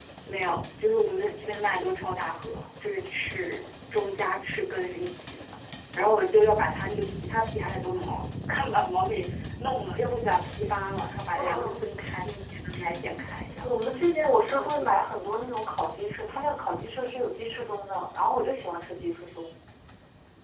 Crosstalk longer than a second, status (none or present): none